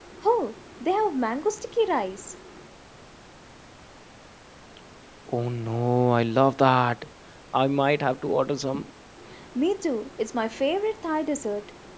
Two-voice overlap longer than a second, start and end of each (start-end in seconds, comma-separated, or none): none